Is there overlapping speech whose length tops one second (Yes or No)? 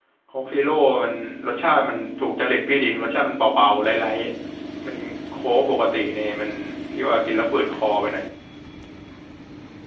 No